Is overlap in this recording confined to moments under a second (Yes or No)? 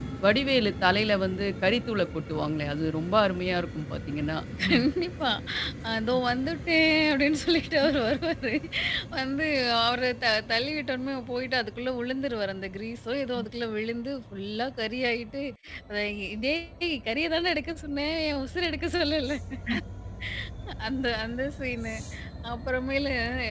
Yes